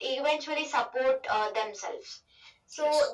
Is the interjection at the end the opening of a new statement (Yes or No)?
No